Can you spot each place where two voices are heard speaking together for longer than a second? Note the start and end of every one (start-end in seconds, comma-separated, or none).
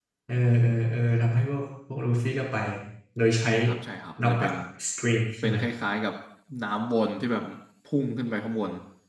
none